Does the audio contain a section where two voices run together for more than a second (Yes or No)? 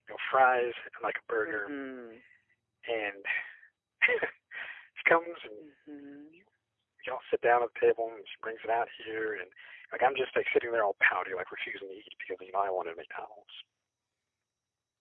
No